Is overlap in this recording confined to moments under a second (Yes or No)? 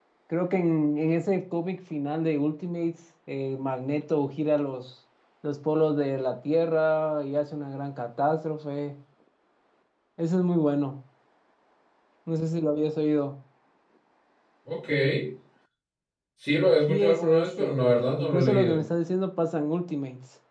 No